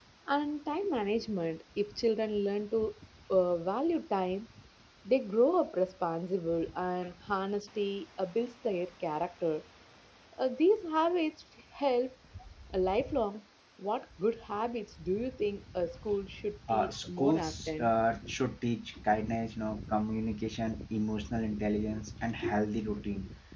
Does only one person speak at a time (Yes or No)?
No